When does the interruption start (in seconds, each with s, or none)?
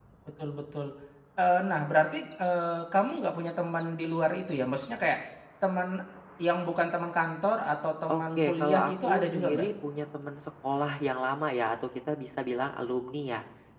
8.1 s